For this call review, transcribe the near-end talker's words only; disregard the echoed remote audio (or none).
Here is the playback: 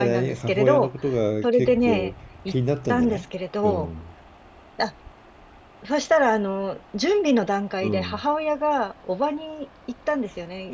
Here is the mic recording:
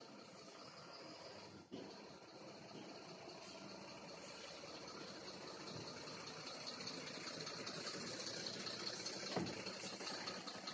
none